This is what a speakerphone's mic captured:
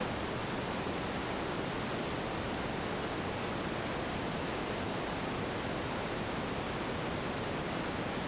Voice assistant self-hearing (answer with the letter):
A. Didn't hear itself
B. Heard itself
A